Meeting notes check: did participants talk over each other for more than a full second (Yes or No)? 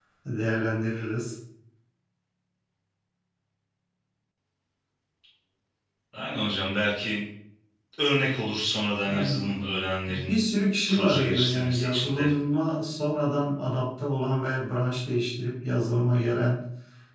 Yes